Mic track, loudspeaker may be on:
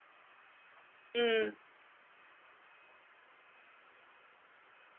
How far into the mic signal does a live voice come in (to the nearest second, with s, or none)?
1 s